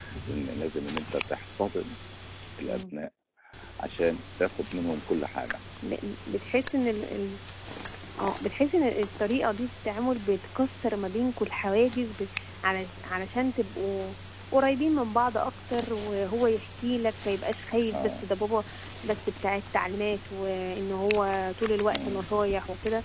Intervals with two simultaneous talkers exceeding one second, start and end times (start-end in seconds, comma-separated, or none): none